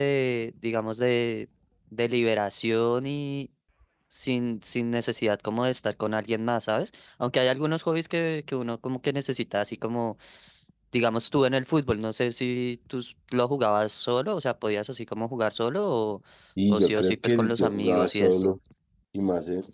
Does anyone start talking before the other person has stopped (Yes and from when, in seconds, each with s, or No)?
Yes, from 16.7 s